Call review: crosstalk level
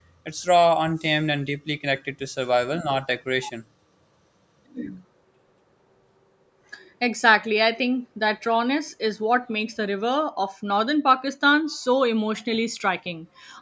none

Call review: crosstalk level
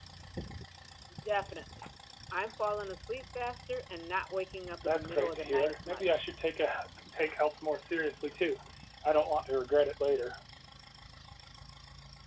present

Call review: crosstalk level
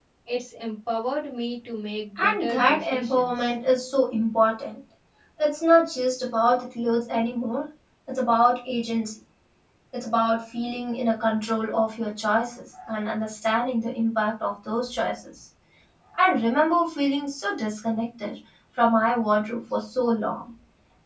present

